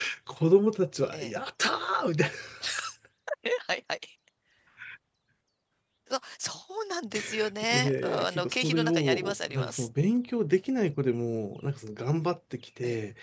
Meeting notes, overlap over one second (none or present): present